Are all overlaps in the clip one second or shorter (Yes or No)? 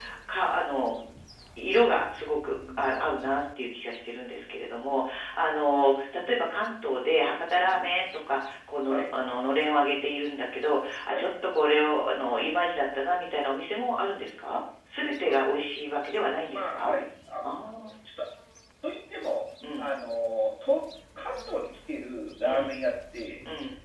Yes